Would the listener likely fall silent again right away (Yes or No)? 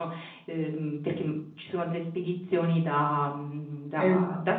Yes